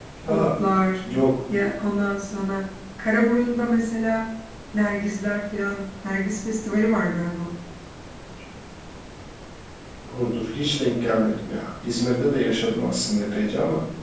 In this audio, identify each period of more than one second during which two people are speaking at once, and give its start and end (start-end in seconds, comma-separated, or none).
none